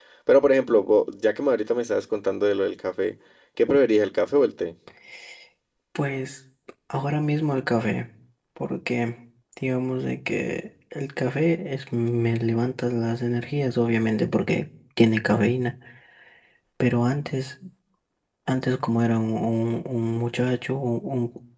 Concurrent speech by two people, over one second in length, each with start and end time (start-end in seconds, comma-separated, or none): none